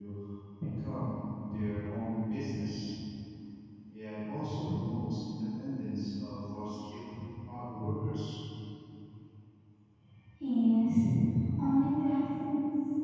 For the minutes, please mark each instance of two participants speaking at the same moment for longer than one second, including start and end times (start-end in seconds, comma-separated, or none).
none